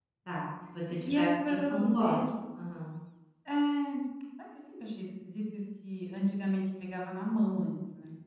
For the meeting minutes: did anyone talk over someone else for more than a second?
Yes, from 0.9 s

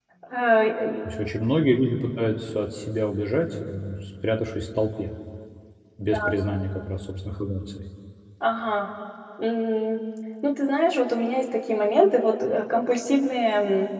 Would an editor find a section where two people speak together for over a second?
No

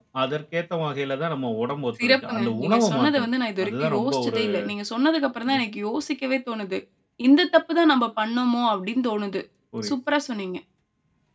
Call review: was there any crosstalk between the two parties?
Yes, from 2.0 s

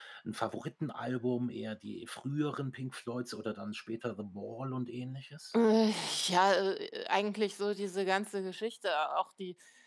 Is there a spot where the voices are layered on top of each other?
No

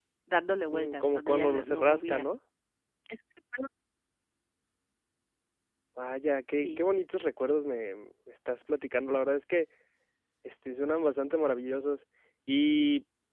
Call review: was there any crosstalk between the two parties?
Yes, from 0.7 s

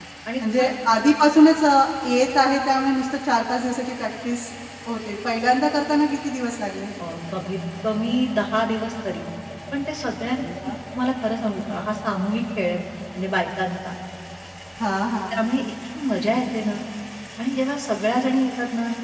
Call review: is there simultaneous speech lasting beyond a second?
No

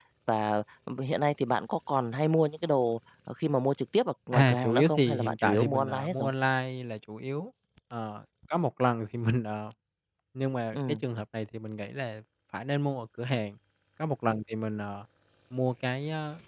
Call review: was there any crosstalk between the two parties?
Yes, from 4.3 s

